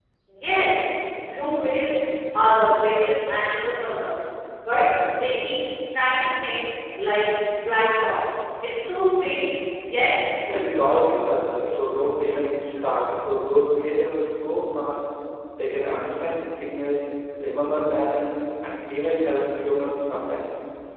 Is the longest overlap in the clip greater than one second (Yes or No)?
No